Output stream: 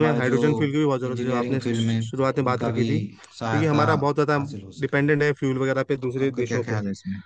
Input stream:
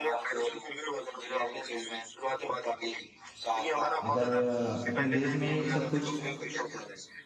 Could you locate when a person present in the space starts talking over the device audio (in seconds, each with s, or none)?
4.1 s